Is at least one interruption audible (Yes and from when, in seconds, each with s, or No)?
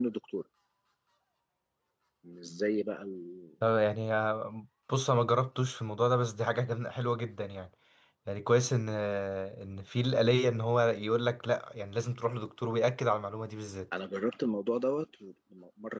No